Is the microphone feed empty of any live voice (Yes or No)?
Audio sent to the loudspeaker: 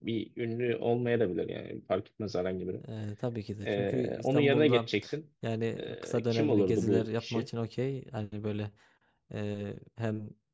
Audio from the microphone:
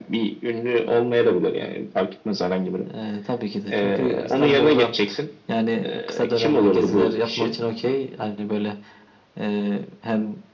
Yes